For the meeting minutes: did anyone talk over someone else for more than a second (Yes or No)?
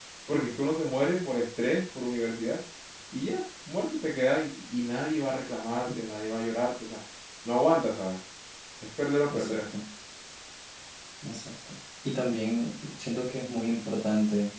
No